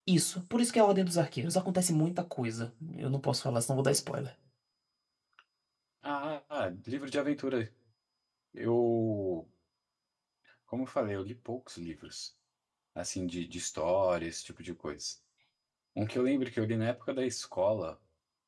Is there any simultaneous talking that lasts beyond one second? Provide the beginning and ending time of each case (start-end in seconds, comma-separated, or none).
none